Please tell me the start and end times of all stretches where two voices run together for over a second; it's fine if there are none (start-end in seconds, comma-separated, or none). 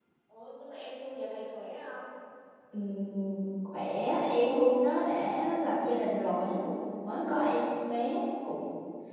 none